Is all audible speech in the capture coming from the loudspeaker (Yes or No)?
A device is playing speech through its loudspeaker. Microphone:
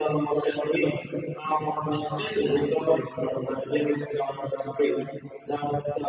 No